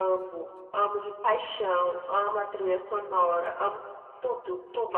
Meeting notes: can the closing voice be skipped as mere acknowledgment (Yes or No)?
No